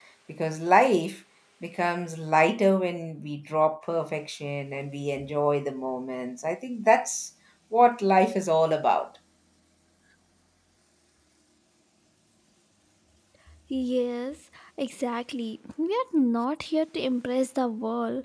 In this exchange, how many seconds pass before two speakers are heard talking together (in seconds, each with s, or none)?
none